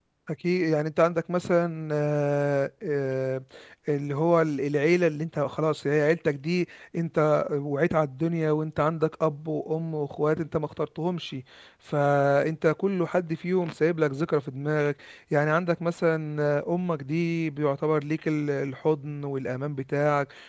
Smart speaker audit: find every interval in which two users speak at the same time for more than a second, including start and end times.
none

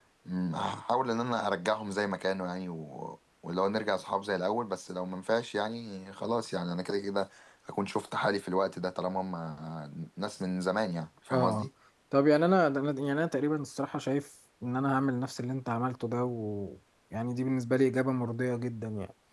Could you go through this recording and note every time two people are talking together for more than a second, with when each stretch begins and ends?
none

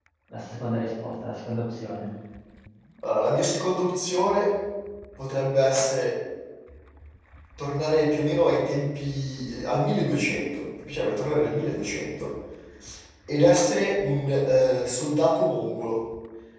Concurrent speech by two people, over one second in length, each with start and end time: none

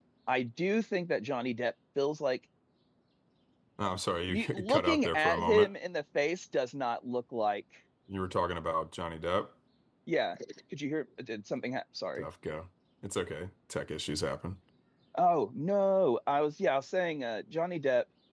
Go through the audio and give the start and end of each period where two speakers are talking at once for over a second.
4.3-5.7

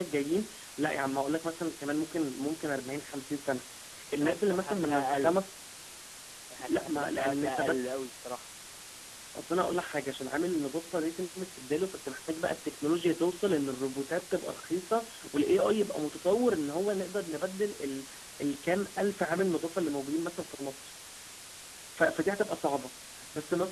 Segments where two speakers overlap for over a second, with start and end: 4.1-5.4, 6.6-8.0

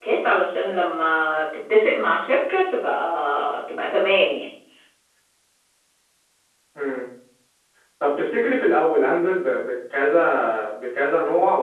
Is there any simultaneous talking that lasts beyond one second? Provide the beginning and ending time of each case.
none

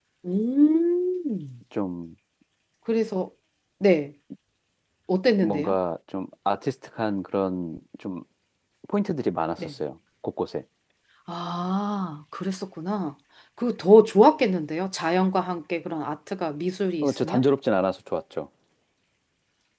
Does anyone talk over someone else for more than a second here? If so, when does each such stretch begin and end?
none

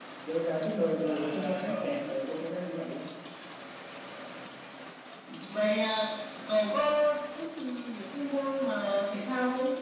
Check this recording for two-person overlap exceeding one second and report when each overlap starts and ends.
1.0-2.2

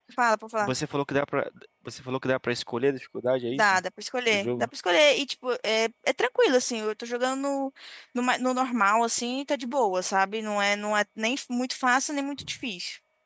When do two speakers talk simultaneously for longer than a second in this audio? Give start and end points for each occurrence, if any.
none

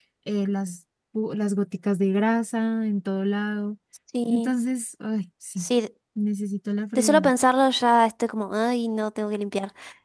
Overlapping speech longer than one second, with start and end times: none

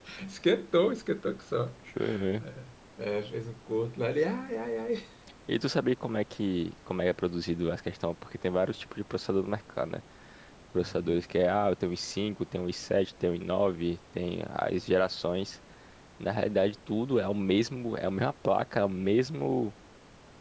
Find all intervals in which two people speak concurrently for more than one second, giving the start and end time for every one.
none

